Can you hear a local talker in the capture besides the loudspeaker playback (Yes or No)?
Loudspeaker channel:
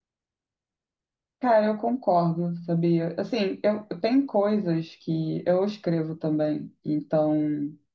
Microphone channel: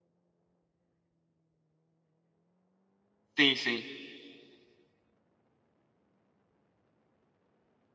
Yes